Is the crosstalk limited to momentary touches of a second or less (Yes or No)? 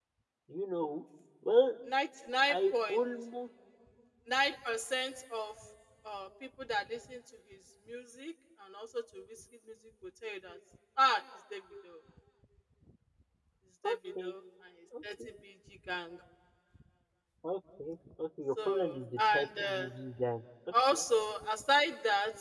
No